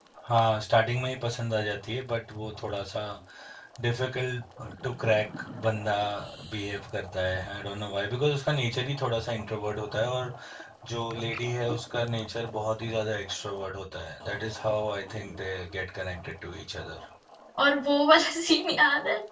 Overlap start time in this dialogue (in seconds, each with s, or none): none